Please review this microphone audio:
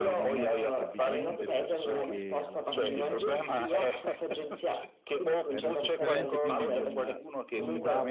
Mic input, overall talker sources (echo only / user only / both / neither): both